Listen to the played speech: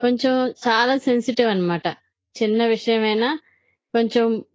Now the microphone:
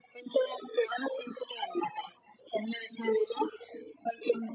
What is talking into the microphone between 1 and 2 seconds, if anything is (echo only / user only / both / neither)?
echo only